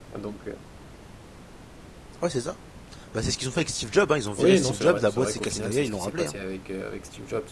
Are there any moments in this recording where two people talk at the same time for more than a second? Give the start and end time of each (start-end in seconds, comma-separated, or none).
4.4-6.3